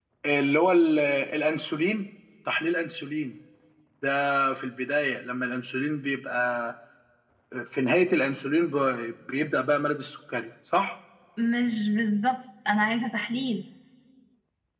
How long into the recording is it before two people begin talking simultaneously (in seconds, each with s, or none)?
none